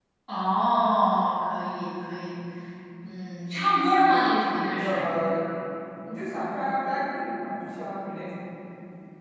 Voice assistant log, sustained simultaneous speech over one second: none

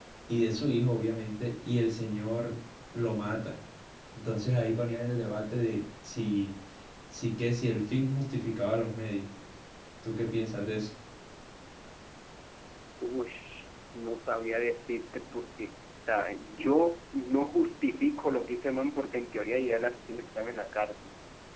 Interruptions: none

